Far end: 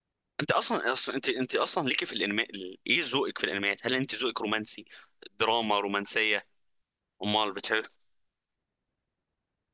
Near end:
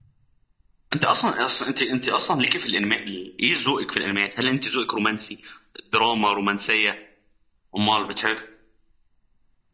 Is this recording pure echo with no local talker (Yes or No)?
Yes